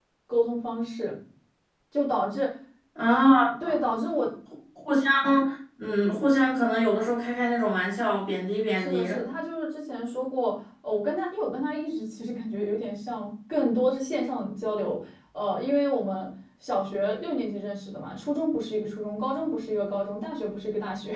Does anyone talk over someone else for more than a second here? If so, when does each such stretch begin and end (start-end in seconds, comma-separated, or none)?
none